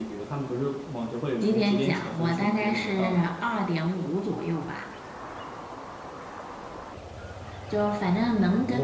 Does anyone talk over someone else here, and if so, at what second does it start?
1 s

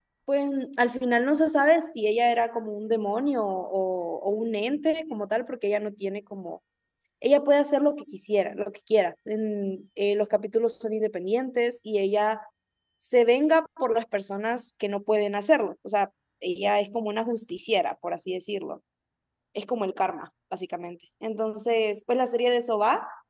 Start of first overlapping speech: none

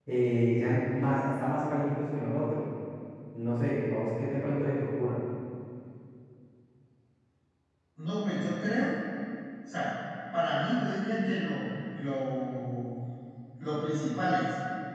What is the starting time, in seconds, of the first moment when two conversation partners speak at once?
none

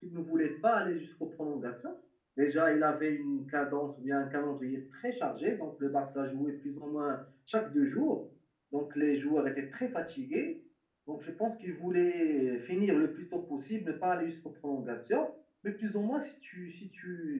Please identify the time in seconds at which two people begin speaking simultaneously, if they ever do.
none

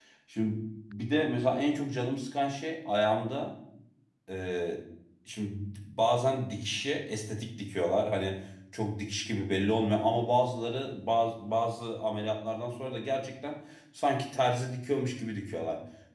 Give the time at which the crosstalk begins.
none

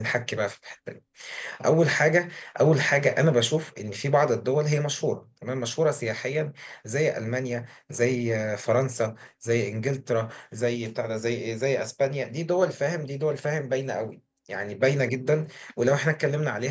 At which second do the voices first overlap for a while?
none

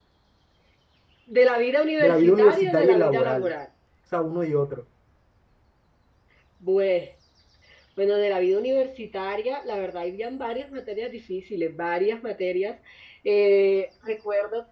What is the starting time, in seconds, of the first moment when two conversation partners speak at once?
2 s

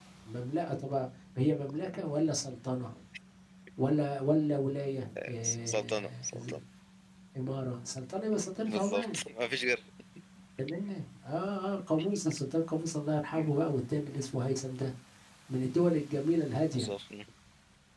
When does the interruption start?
5 s

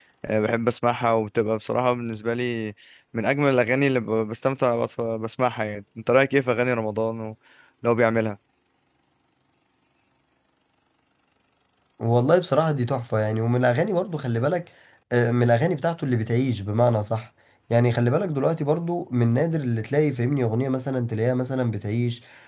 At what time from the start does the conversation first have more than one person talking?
none

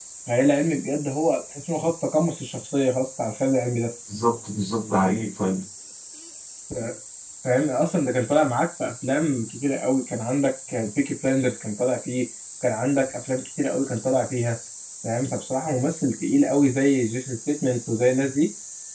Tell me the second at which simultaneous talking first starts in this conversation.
none

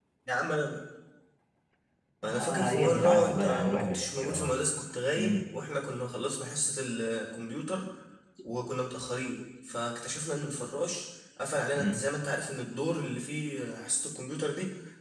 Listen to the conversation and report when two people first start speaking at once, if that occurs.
2 s

